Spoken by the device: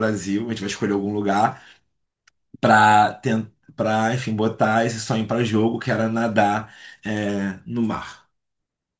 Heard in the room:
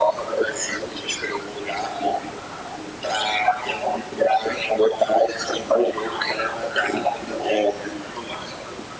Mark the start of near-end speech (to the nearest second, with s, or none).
none